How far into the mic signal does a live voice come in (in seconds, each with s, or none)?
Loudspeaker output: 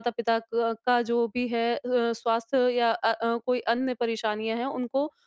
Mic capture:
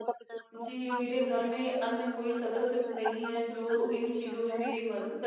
0.5 s